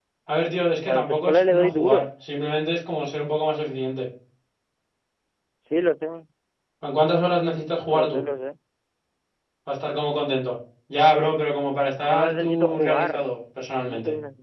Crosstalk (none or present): present